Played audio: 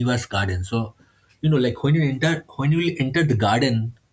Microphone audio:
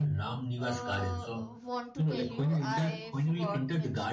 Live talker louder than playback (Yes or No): No